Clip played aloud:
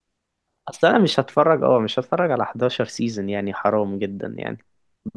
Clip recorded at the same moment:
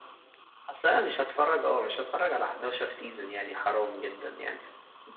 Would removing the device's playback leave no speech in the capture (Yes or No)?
Yes